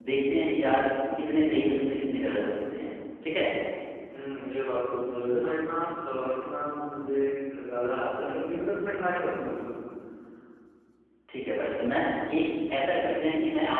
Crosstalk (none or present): none